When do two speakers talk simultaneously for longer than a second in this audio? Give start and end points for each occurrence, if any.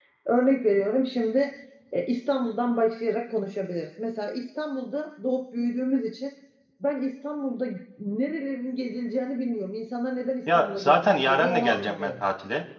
10.5-12.3

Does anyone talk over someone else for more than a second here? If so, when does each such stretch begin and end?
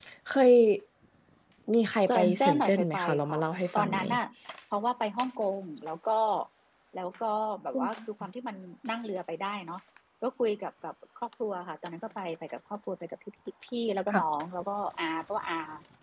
2.0-3.4

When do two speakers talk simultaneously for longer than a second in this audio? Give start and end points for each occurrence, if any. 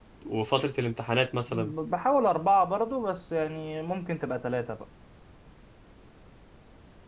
none

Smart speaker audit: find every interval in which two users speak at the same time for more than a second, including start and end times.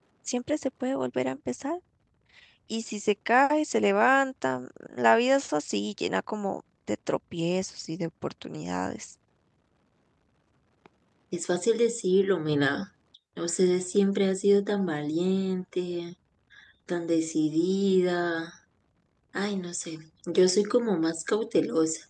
none

